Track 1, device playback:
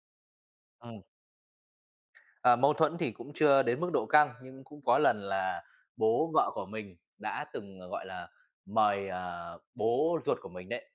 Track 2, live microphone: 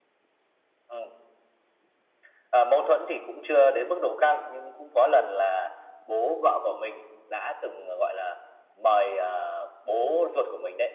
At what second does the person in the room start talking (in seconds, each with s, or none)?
none